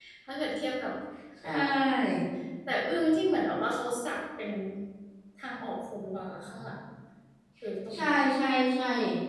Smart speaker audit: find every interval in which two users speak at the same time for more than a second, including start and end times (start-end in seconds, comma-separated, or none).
none